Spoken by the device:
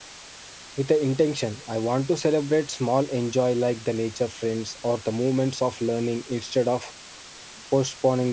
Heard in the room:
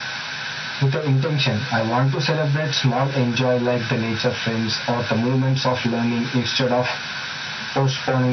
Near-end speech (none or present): none